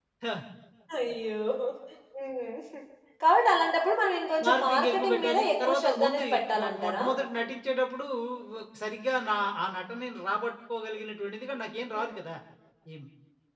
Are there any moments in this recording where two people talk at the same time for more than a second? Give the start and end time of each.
4.5-7.0

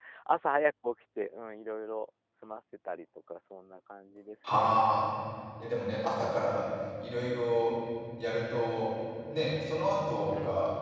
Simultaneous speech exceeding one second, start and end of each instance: none

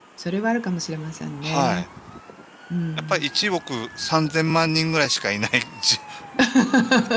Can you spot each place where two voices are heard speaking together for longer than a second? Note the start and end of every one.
none

